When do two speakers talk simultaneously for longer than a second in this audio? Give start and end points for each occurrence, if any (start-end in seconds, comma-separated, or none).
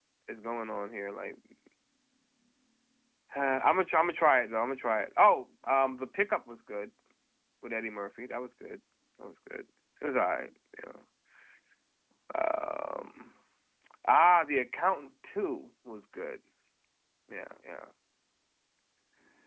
none